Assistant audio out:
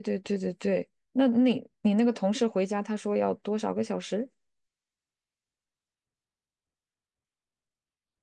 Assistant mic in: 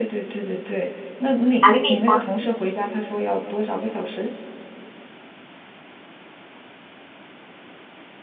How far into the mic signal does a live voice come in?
1.6 s

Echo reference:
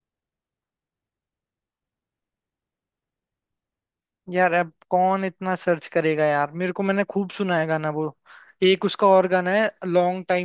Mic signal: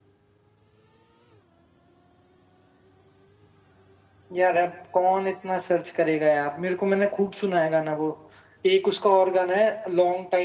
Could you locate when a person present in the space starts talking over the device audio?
none

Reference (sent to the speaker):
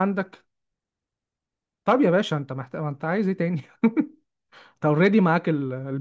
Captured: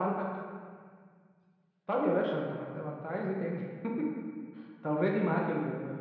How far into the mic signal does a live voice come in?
none

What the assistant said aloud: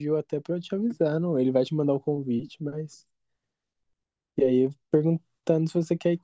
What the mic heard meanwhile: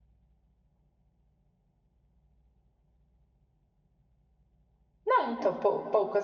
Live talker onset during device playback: 5.0 s

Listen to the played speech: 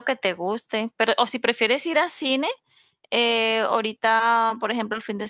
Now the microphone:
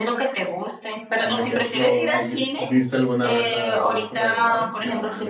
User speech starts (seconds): 1.2 s

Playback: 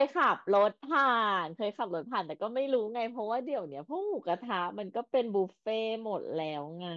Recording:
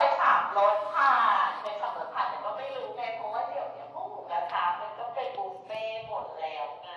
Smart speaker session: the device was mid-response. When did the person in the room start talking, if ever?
none

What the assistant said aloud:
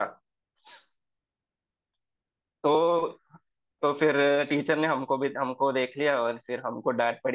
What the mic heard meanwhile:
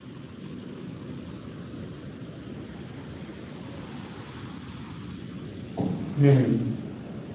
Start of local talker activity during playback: 5.8 s

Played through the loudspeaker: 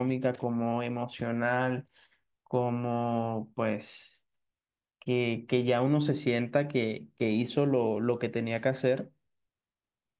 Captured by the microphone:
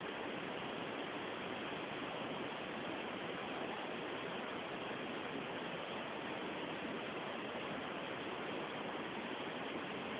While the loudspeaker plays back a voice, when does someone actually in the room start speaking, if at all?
none

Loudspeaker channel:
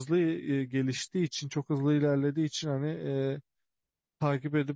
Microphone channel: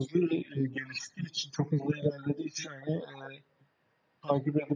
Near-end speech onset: none

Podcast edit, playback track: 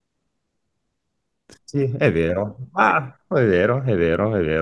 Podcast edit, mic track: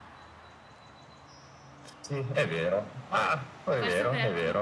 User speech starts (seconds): 3.7 s

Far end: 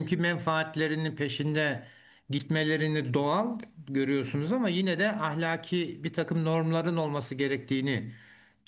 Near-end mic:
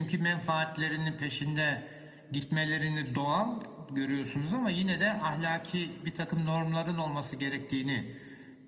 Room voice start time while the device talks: none

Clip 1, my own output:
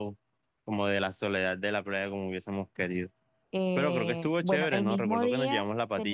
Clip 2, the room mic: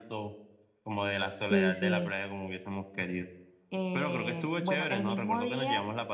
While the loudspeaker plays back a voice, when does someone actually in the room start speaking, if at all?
1.3 s

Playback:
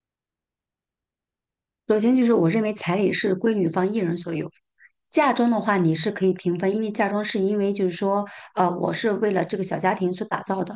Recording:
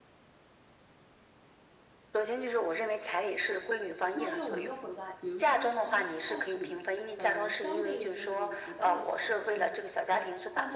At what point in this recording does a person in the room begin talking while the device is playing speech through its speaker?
4.1 s

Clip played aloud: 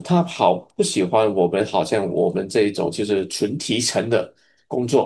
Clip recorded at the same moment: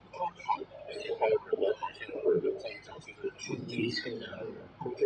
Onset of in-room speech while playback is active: 3.5 s

